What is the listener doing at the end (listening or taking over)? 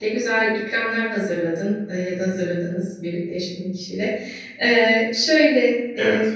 listening